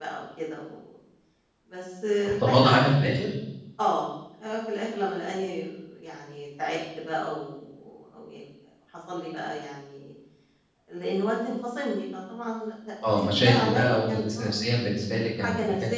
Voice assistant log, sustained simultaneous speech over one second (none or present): present